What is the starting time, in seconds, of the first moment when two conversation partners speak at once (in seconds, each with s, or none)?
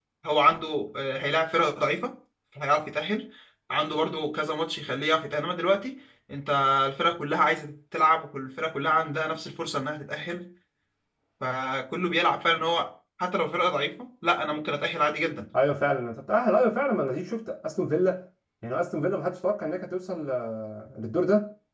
none